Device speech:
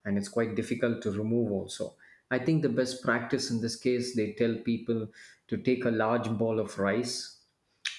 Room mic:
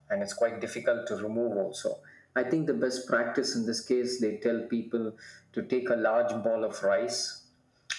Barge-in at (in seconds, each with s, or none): none